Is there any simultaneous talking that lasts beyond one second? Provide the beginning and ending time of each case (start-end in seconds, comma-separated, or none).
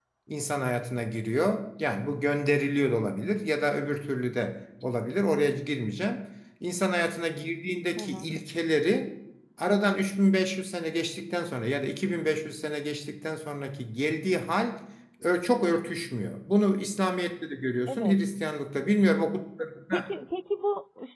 none